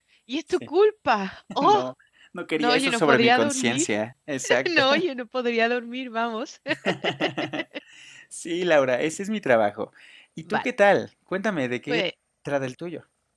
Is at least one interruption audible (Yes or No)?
Yes